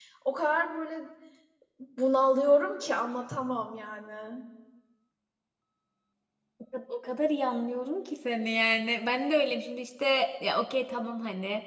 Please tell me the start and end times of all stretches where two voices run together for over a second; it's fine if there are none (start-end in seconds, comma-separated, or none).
none